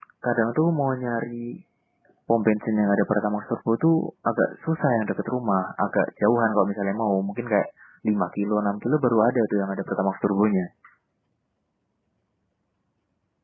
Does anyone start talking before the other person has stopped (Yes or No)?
No